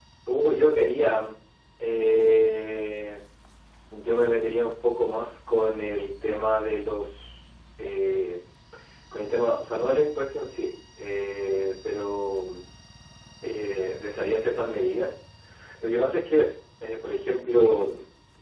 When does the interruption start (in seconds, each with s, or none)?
none